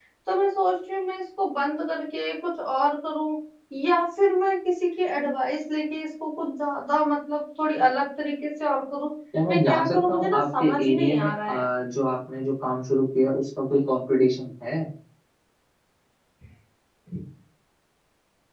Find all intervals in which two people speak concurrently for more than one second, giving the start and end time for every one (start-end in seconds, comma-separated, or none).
9.5-11.6